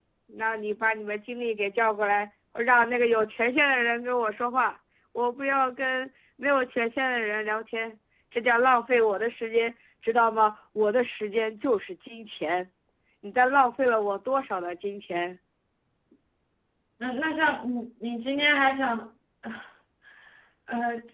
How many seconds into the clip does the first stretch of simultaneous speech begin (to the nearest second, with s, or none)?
none